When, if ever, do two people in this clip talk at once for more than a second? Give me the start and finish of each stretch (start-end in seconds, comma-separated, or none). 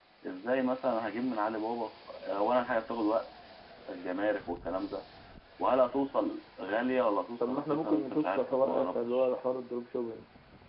7.5-9.3